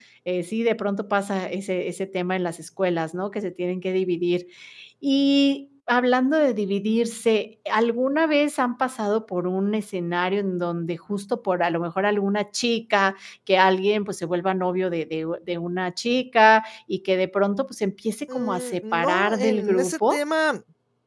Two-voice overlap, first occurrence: 18 s

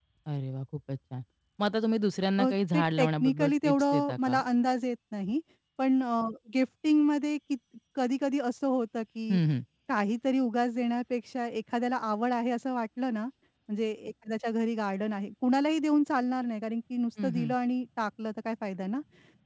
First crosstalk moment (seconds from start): 2 s

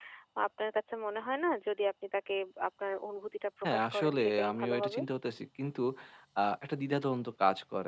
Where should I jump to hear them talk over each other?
4 s

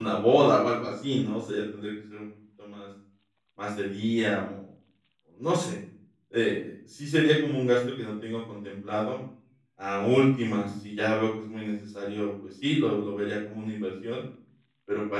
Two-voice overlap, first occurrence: none

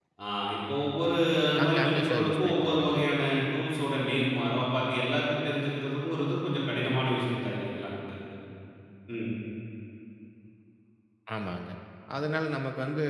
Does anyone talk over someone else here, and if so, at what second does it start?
2 s

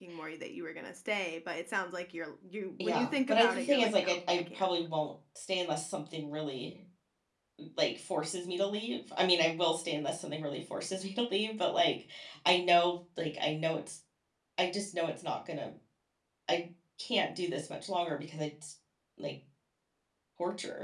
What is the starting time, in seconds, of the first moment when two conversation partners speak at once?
3 s

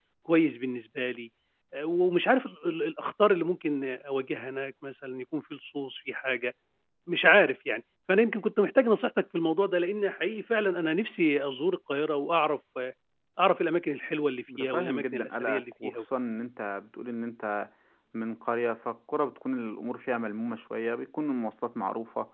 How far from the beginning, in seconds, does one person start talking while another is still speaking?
14 s

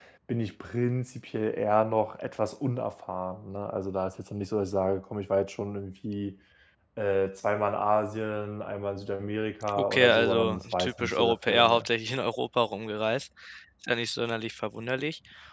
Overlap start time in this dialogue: 10 s

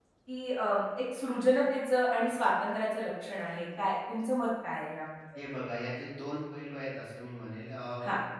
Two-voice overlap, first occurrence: none

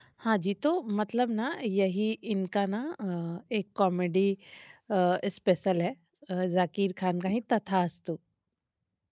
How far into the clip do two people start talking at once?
none

